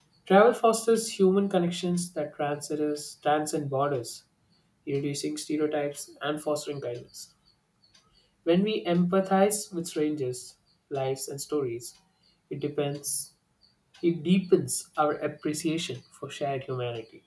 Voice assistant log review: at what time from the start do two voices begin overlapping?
none

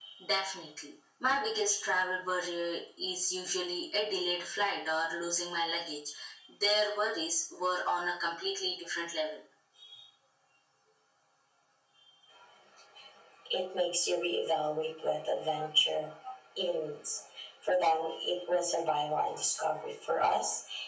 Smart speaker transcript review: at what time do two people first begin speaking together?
none

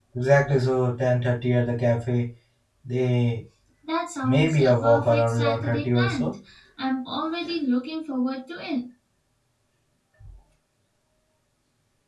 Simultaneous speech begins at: 4.2 s

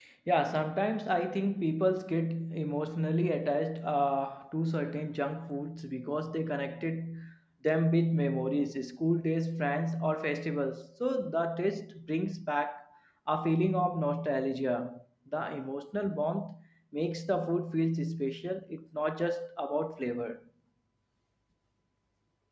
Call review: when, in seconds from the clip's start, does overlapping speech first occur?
none

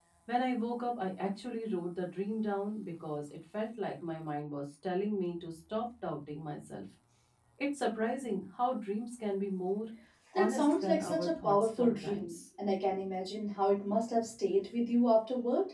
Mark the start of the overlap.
10.4 s

